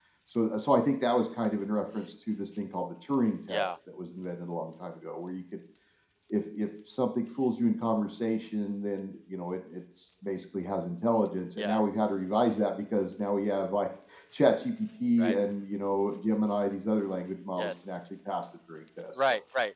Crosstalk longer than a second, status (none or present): none